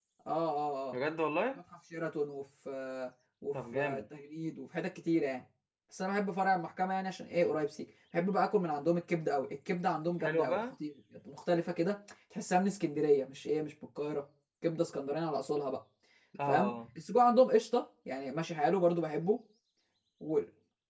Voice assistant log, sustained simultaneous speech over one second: none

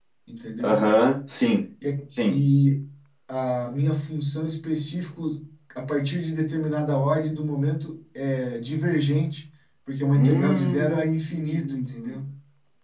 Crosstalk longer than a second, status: present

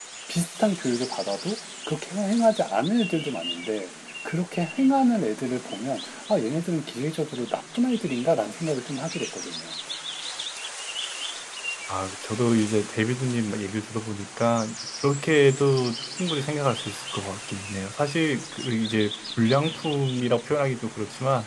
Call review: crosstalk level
none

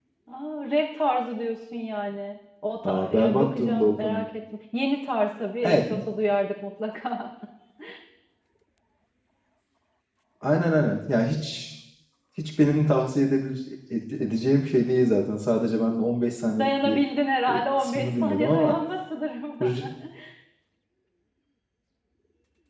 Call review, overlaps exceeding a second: present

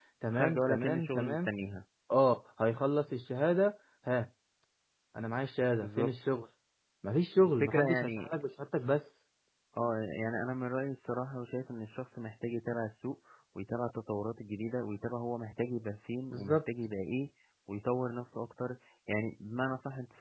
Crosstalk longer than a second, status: present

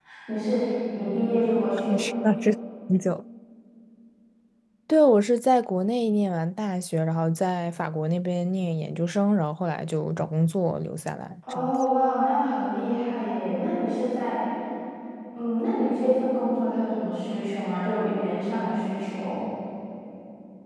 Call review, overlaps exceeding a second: none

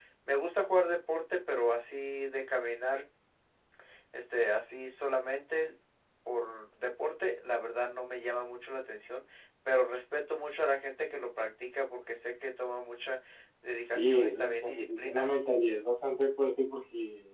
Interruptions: present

